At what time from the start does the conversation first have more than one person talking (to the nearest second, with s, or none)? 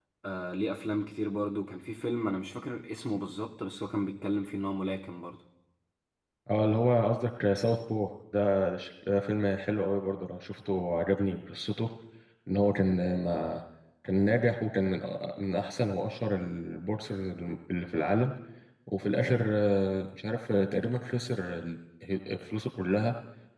none